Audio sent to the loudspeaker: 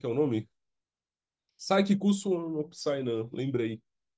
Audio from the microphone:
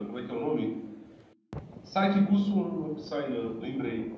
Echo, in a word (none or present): present